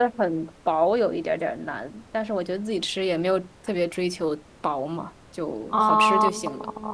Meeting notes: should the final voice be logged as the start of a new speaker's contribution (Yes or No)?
Yes